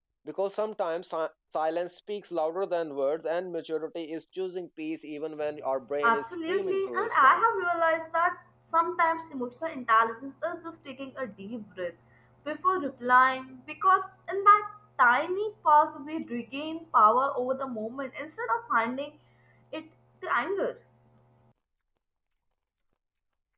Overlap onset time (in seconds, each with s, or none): 6.0 s